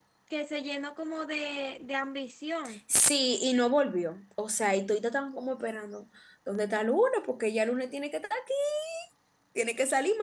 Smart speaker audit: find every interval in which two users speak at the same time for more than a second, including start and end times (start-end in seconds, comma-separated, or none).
none